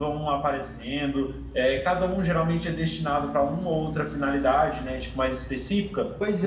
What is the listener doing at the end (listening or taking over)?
taking over